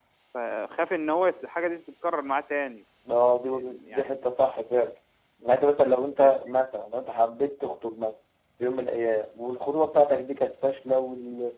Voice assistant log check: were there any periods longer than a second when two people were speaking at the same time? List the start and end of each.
none

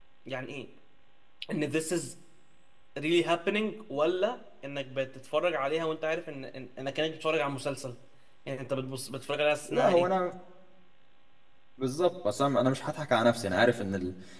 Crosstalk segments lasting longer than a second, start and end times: none

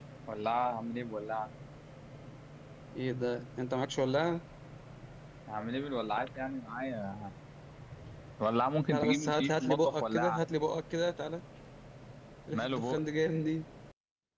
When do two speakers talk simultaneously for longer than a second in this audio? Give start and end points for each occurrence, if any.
8.9-10.4

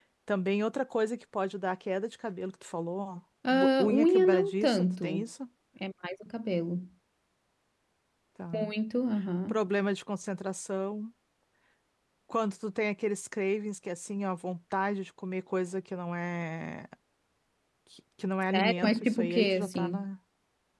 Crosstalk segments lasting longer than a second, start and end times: 3.5-5.1, 18.5-20.1

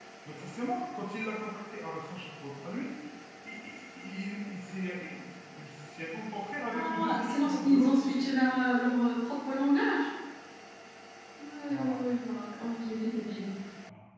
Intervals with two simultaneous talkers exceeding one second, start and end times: 6.7-8.2

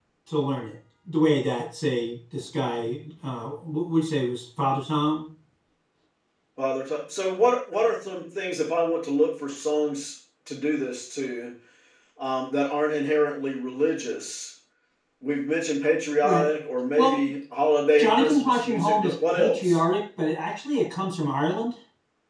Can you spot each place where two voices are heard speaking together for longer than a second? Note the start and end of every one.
18.0-19.8

